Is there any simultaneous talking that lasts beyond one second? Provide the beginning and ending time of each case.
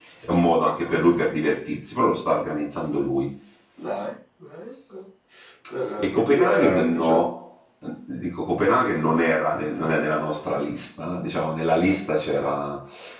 6.0-7.2

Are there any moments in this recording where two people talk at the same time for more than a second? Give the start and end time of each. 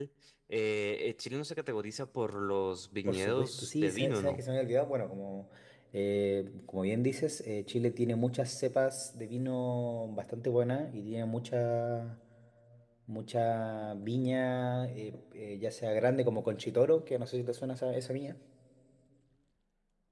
3.1-4.4

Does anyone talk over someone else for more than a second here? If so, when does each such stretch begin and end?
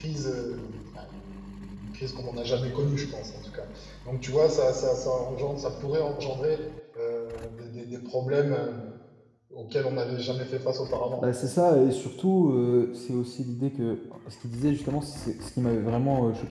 none

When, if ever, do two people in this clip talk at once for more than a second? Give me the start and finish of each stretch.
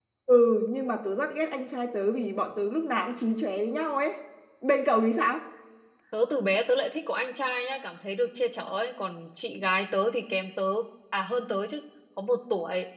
none

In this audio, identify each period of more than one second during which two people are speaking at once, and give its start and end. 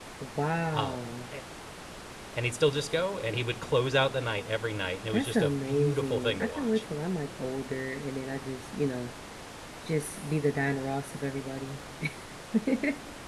5.1-6.8

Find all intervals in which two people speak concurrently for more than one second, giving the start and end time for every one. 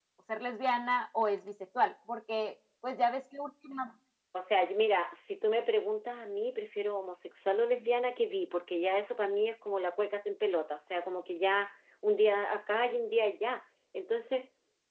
none

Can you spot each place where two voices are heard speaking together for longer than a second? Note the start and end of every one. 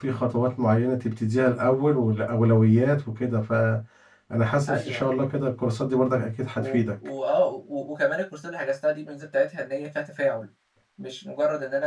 none

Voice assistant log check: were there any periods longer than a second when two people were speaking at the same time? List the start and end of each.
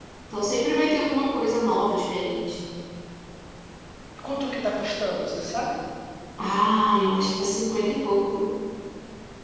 none

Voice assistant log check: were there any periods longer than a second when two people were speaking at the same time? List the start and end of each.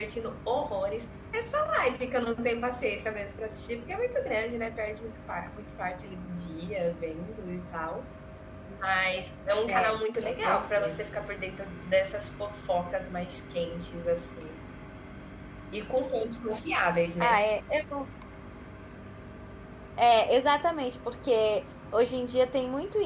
9.7-11.0

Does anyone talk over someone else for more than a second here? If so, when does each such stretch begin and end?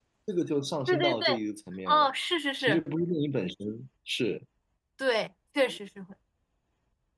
none

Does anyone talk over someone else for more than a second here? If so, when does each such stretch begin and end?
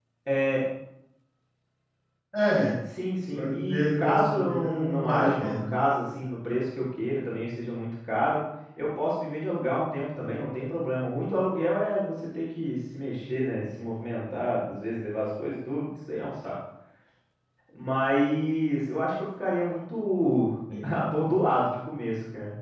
3.3-5.5

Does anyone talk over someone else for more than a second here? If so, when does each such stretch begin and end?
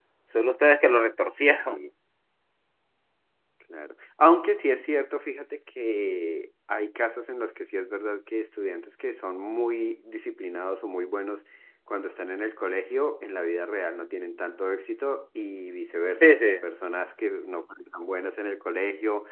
none

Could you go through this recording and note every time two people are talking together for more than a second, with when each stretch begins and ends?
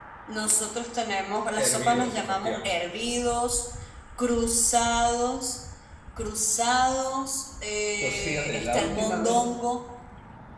1.6-3.0, 8.0-9.5

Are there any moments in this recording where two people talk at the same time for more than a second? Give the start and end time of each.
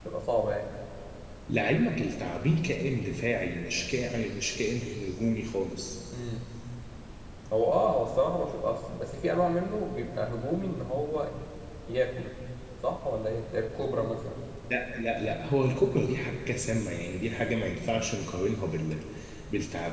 none

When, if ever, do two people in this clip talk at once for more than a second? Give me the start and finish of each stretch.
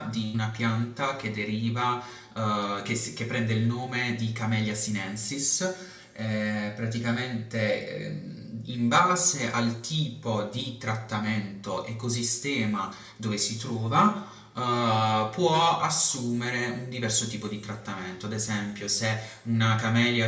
none

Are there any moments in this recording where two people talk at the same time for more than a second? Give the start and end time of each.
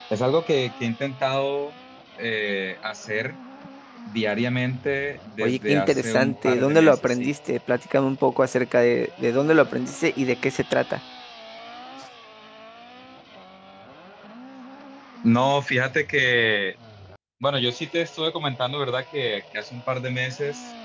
5.4-7.3

